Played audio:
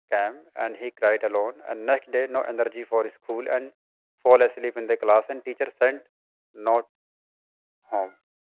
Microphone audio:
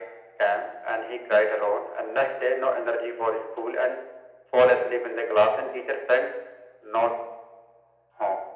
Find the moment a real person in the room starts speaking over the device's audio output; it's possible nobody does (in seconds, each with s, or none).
none